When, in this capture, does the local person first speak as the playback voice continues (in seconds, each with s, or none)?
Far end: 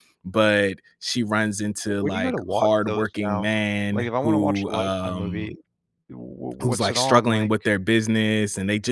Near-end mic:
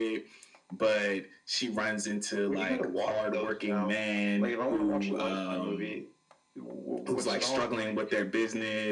none